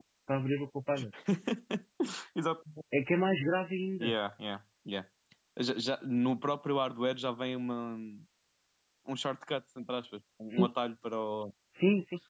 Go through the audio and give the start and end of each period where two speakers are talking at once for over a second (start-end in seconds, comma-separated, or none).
none